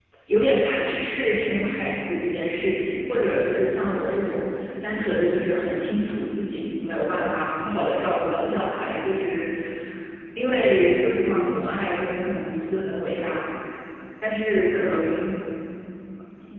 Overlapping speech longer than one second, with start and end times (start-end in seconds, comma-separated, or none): none